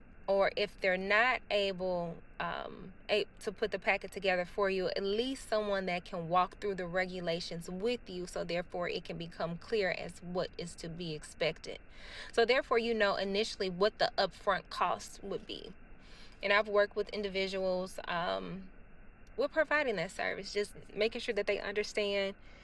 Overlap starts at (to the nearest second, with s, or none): none